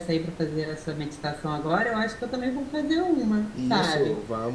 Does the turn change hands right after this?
Yes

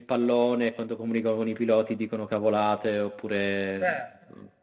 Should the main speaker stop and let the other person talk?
Yes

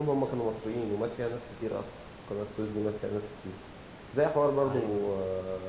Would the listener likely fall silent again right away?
Yes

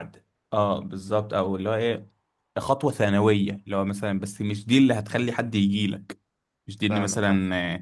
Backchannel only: Yes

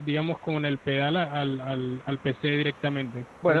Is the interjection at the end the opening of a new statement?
Yes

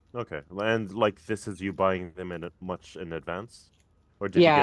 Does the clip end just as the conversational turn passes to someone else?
Yes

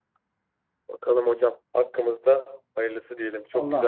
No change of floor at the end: No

